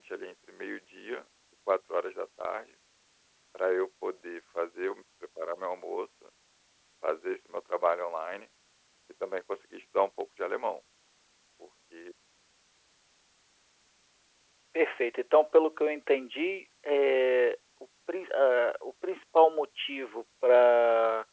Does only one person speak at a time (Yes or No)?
Yes